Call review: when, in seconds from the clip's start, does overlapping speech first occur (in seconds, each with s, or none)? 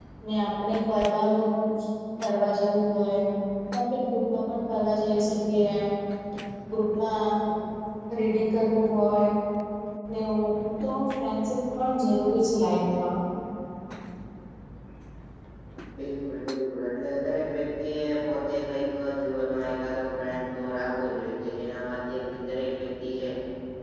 none